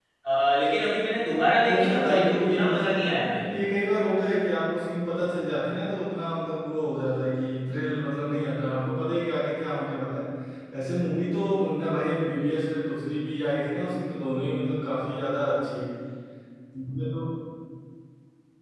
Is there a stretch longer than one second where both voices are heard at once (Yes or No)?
Yes